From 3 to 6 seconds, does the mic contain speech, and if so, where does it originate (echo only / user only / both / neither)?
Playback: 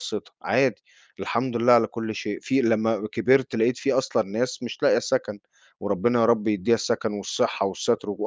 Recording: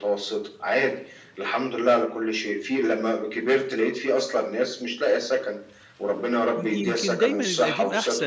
echo only